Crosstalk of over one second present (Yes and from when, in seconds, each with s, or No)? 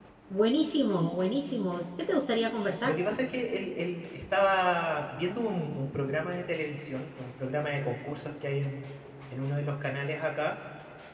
No